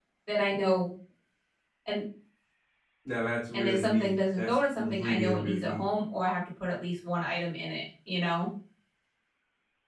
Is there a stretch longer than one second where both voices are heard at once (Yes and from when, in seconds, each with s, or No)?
Yes, from 3.5 s